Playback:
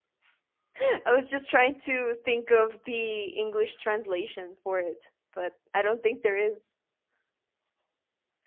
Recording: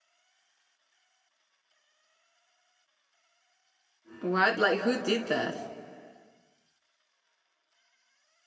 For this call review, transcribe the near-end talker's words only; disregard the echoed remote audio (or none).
What? Like who did that?